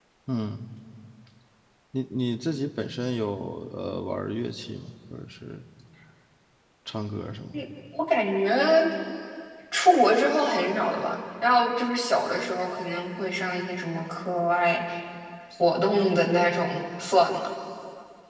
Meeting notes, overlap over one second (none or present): none